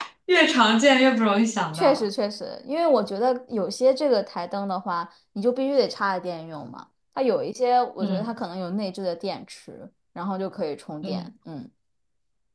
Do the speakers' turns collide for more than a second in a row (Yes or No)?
No